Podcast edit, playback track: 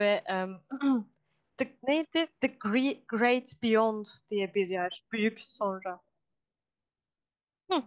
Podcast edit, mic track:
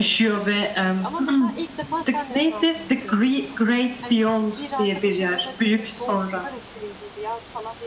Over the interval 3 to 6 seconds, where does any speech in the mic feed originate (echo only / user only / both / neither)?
both